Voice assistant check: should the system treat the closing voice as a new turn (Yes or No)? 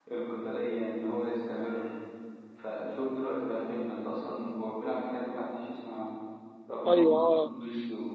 No